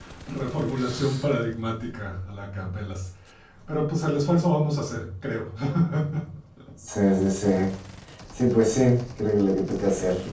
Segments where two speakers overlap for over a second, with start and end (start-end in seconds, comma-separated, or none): none